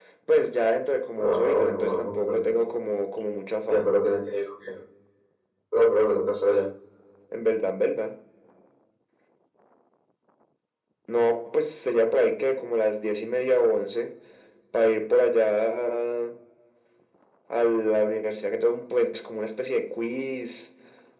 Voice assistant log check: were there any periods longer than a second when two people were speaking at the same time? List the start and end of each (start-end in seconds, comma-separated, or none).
1.2-2.7